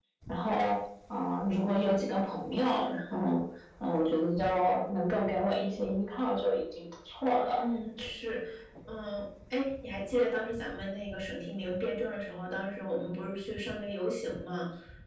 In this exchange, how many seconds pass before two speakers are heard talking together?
none

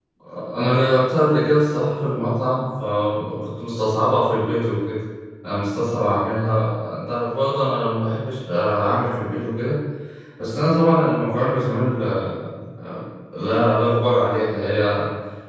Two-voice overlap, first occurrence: none

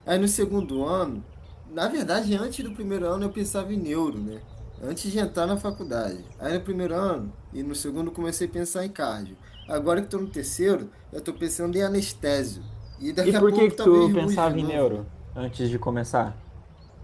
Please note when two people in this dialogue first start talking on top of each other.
13.2 s

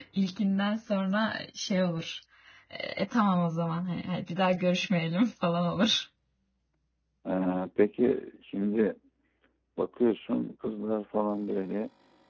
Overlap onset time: none

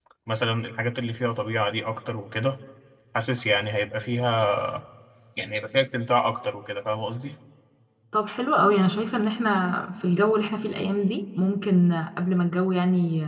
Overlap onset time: none

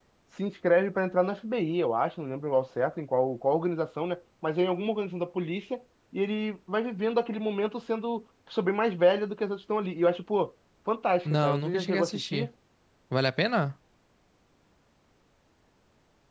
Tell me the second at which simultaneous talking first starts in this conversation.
11.2 s

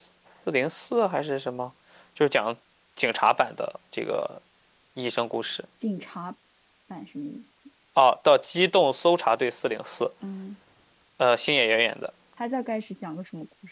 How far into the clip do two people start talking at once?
none

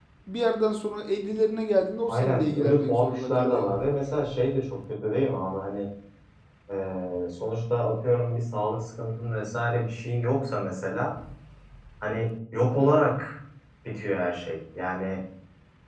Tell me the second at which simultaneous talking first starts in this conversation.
2.1 s

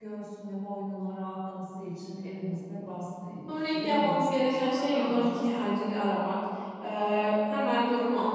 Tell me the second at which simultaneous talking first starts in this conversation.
3.5 s

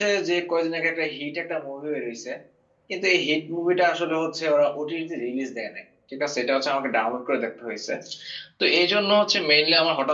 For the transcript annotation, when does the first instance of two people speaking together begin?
none

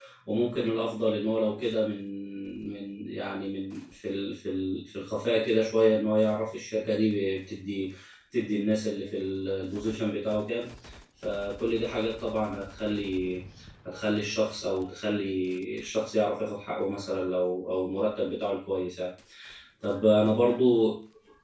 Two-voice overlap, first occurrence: none

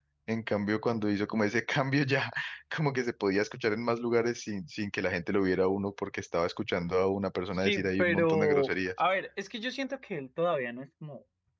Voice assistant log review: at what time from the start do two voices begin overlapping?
7.5 s

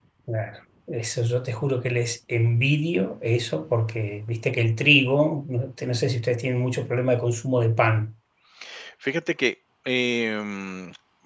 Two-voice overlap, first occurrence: none

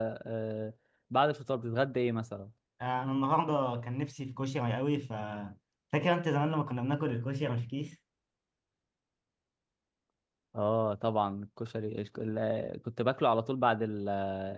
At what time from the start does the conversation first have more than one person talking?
none

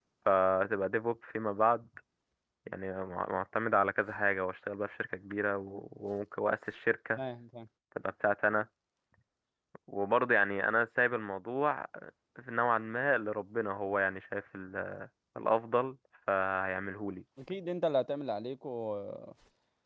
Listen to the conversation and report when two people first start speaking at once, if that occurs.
none

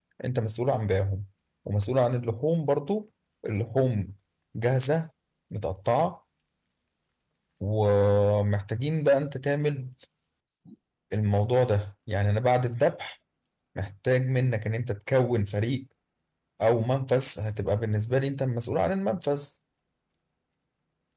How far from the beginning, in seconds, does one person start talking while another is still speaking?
none

